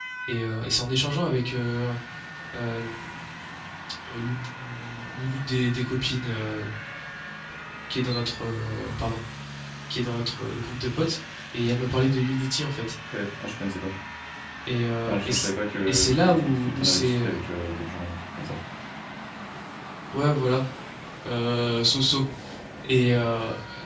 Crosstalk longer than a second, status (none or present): present